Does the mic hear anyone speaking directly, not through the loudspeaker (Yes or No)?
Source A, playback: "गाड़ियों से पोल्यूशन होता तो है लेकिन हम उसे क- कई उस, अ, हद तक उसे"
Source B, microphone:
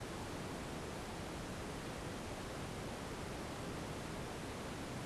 No